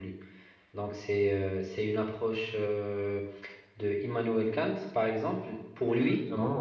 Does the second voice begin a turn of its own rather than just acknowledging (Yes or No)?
No